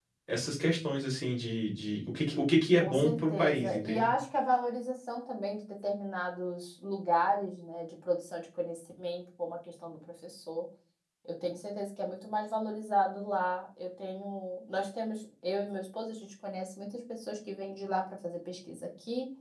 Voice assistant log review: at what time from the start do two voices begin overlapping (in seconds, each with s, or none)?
2.8 s